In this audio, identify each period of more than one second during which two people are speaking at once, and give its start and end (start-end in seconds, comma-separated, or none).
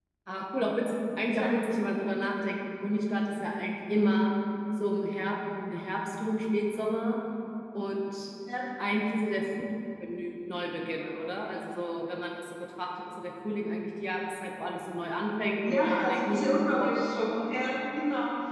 15.7-16.9